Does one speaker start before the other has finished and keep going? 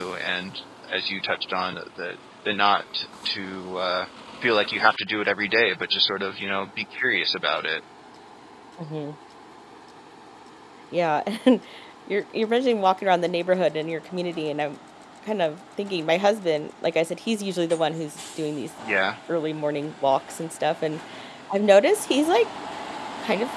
No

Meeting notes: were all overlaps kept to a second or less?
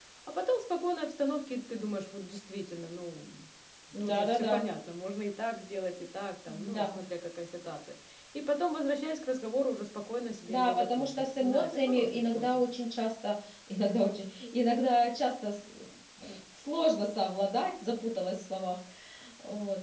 No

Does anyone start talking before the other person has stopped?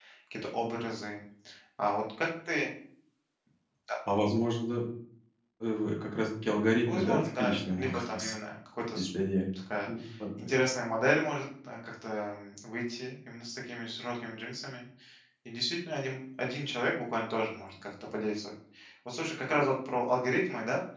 Yes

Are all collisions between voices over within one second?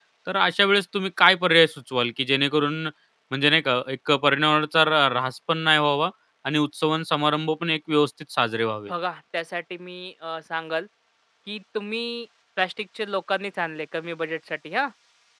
Yes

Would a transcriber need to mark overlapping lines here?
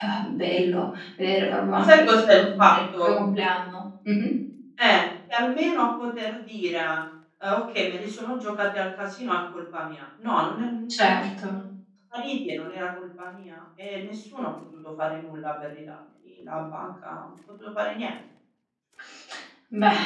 Yes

